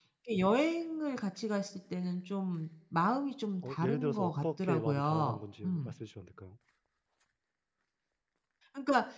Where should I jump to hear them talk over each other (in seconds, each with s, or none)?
3.6 s